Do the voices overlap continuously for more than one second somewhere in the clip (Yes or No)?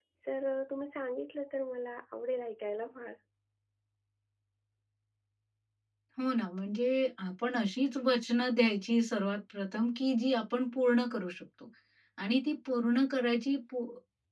No